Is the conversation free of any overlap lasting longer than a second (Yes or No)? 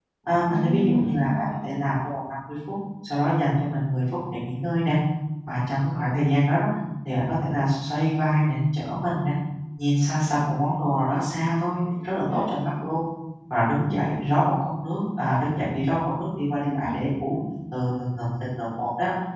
No